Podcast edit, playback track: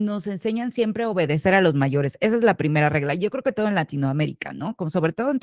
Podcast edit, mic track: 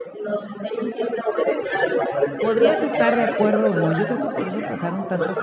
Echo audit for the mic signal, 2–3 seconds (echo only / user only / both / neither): both